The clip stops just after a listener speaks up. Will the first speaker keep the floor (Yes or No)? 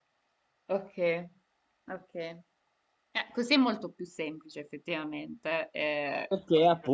No